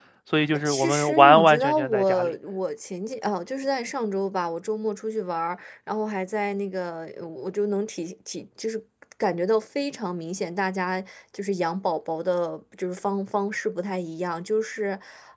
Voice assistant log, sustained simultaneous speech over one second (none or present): present